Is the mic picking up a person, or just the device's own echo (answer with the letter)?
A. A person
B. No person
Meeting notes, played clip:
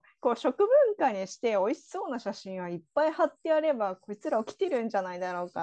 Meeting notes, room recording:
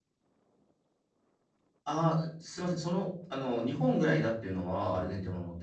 A